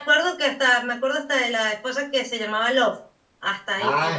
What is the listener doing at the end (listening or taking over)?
taking over